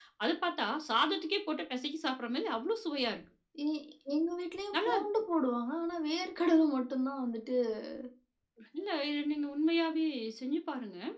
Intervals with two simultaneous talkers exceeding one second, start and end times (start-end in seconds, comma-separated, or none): none